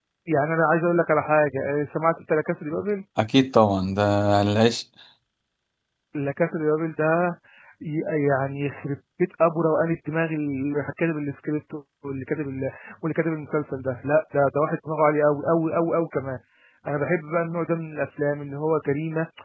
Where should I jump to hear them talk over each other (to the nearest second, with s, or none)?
none